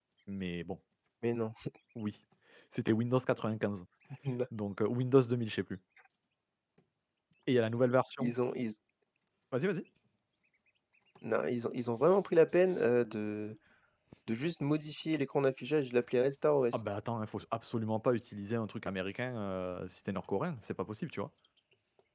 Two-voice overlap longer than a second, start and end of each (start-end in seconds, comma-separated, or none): none